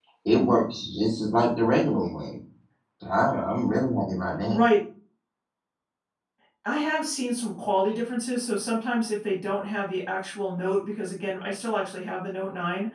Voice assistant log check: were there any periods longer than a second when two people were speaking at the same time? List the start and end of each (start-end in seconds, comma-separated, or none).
none